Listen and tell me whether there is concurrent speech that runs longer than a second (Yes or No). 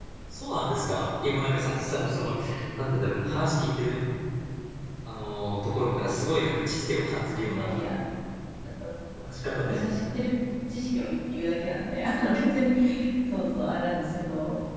No